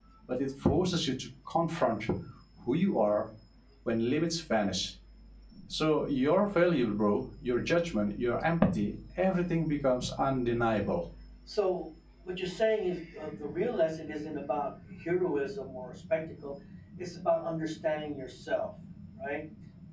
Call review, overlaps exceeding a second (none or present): none